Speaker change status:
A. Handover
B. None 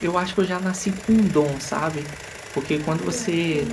B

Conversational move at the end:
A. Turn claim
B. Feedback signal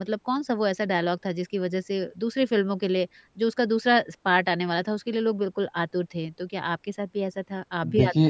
A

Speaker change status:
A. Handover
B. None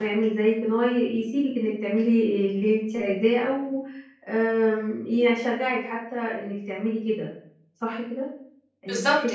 A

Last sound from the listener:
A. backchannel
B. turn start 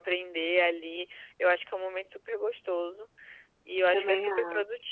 A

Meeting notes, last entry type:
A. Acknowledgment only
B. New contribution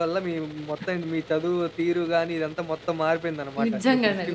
B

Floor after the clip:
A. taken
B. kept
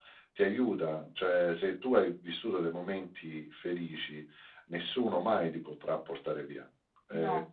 B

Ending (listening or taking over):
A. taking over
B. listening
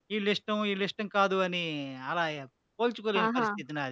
A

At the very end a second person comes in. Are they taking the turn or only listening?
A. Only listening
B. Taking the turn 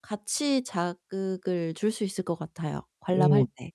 B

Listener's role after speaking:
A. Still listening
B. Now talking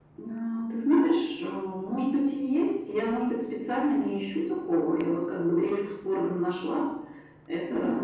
A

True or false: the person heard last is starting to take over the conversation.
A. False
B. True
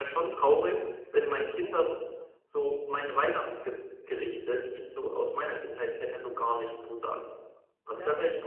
A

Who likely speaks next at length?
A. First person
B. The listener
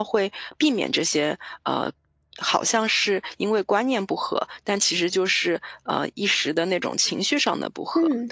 B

